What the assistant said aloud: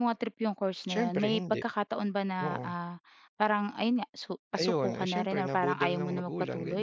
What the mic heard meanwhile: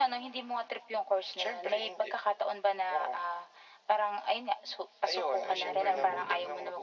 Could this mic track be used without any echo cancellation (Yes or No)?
No